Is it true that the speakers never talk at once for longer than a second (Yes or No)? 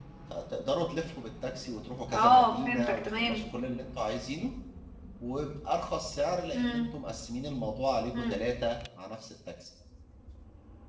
No